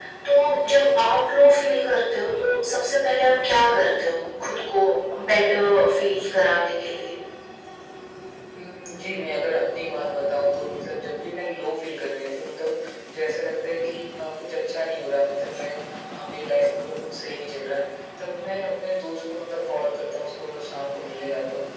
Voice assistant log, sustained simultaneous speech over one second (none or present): none